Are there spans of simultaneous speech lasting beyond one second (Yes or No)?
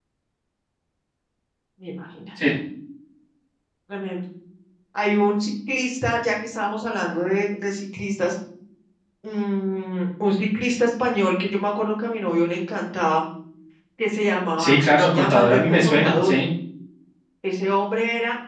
Yes